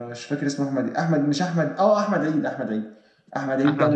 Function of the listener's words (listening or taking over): listening